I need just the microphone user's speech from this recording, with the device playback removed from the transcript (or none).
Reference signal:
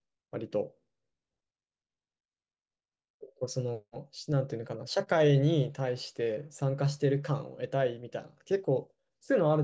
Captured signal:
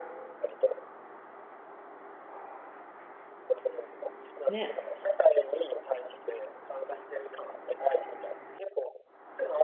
ね、